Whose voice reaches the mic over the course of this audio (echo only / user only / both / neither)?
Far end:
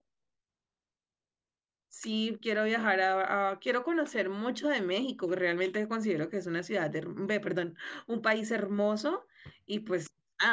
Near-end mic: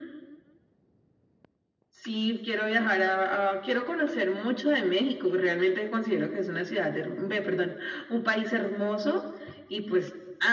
echo only